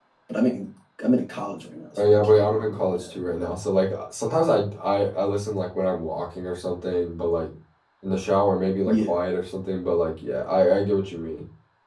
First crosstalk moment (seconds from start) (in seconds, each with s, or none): 2.0 s